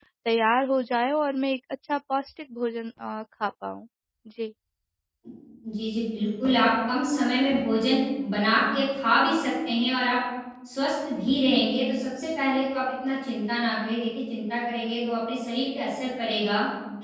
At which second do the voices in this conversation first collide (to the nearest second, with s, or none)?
none